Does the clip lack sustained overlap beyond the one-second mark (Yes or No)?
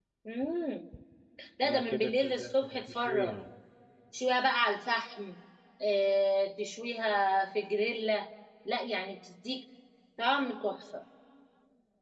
No